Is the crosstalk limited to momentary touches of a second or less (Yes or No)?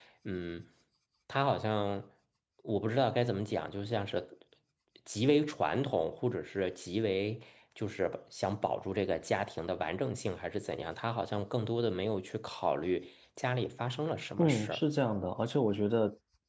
Yes